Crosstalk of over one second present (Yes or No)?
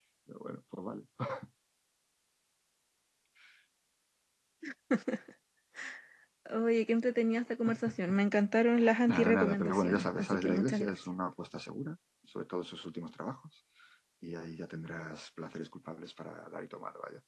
Yes